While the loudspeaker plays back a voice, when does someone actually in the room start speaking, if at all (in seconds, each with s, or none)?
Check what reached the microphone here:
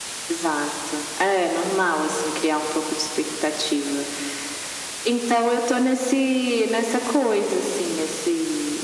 none